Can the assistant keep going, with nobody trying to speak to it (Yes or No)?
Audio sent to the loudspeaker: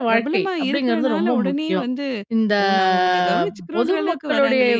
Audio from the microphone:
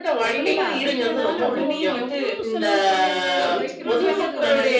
No